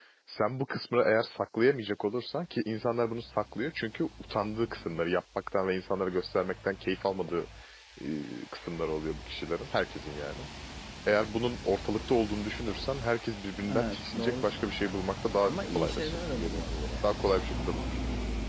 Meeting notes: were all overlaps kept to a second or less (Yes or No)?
No